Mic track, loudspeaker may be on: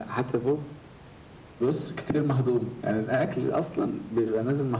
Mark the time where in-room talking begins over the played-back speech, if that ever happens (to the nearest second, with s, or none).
none